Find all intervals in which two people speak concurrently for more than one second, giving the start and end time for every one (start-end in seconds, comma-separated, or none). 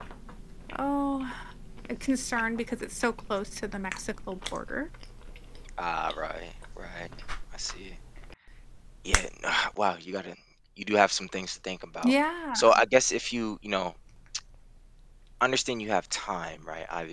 none